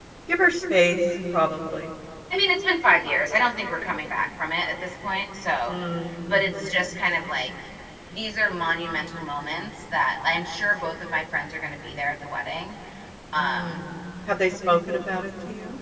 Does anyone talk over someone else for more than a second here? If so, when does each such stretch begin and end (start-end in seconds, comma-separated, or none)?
none